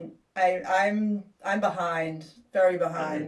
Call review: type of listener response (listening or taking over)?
taking over